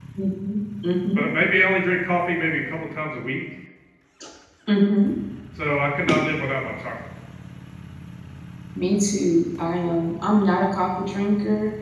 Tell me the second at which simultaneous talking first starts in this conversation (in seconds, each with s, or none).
none